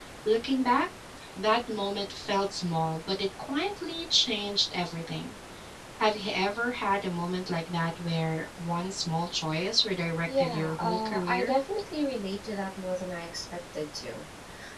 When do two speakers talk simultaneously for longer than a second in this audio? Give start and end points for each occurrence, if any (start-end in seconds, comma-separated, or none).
10.3-11.5